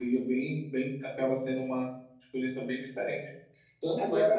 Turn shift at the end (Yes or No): No